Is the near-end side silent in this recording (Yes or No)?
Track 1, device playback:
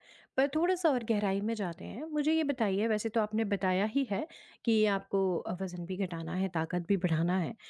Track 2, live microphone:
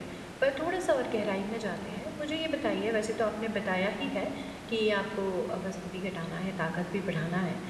Yes